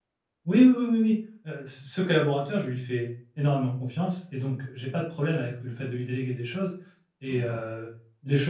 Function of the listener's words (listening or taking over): listening